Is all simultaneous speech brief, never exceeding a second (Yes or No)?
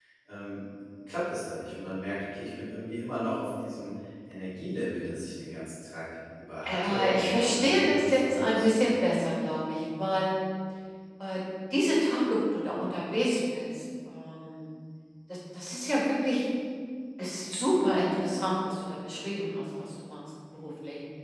No